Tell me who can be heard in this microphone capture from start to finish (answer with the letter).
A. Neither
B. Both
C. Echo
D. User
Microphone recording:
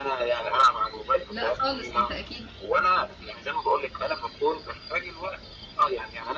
B